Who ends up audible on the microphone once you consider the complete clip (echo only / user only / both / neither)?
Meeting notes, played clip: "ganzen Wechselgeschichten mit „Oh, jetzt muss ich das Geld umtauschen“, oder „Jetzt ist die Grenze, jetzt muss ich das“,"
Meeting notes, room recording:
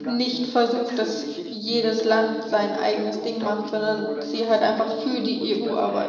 both